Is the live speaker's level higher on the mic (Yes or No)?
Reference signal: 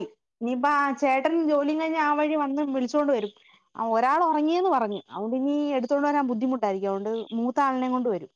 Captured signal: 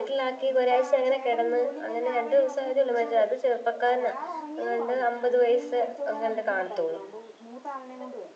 Yes